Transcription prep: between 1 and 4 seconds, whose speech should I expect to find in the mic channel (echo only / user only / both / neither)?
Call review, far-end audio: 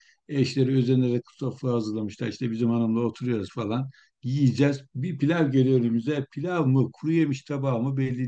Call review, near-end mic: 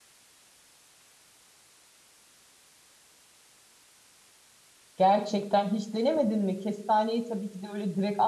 neither